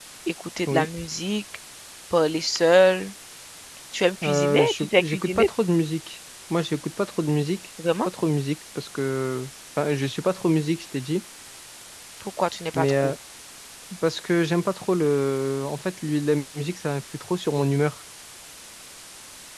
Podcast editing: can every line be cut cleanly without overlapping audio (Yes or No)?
No